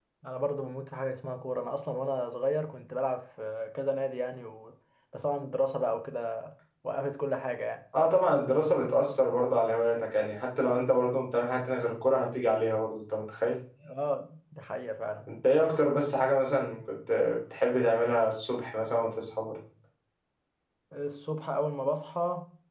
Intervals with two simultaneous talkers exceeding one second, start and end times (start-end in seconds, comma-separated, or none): none